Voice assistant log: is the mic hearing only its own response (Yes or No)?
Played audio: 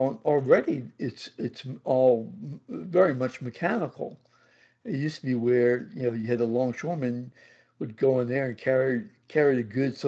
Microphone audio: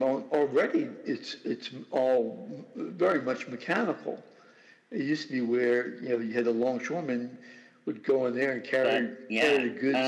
No